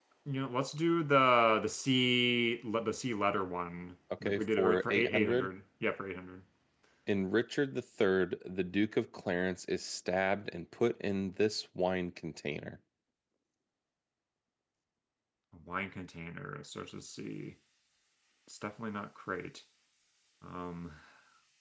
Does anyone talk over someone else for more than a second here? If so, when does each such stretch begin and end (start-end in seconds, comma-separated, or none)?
4.2-5.5